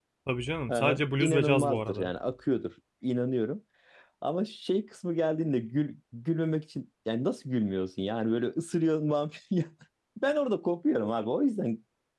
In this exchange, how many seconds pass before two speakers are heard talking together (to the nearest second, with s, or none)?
1 s